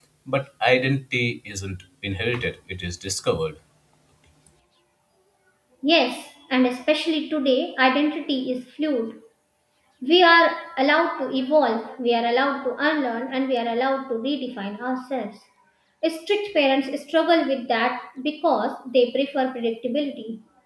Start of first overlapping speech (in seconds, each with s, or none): none